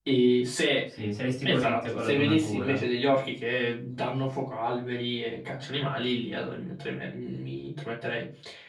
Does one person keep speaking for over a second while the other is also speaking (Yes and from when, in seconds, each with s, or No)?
Yes, from 1.4 s